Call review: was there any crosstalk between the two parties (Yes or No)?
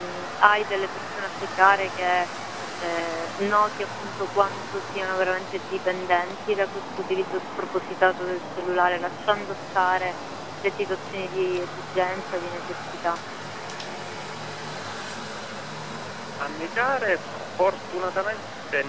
No